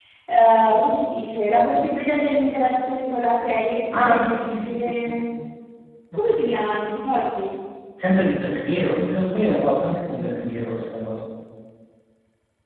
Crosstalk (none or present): present